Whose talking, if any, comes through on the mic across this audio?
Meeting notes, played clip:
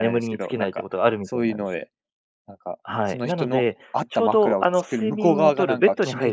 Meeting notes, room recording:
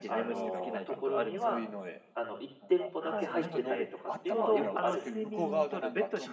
both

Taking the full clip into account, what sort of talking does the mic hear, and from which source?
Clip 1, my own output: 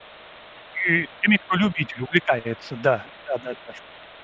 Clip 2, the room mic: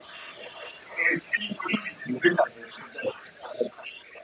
echo only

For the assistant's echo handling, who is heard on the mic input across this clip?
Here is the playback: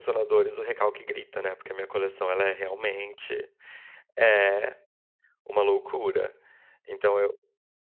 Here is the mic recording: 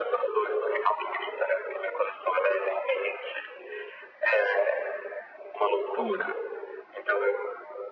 both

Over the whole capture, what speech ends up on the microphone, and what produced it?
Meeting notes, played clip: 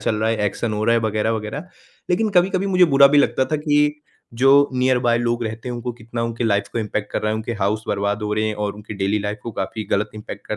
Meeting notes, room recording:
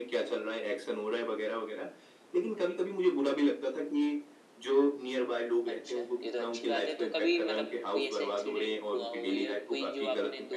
both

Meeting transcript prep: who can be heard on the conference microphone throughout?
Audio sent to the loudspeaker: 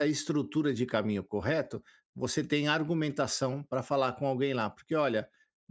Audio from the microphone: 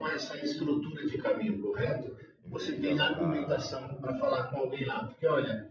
both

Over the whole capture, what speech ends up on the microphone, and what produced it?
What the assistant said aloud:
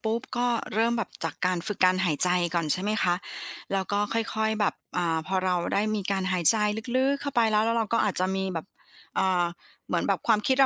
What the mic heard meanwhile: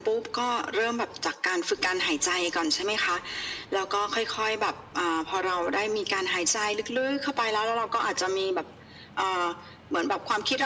echo only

